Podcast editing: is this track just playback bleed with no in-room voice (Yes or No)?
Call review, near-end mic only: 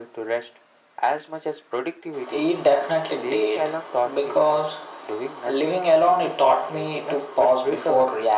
Yes